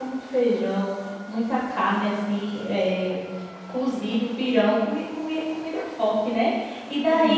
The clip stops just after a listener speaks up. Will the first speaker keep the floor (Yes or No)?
Yes